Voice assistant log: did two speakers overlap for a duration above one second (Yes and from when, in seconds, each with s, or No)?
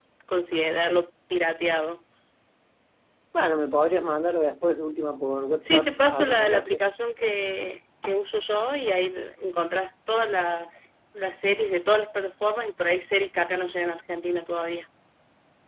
Yes, from 5.6 s